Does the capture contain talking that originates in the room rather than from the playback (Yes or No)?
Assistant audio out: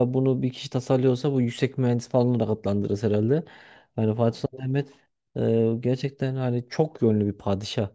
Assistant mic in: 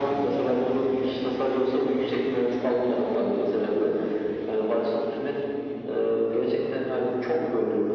No